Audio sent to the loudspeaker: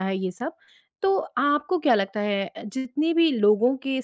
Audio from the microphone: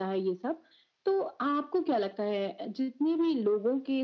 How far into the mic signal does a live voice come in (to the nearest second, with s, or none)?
none